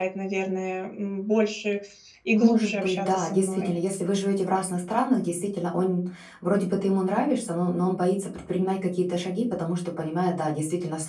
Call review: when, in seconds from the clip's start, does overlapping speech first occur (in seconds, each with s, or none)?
2.4 s